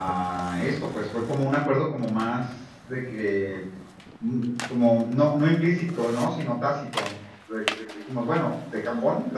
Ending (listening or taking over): listening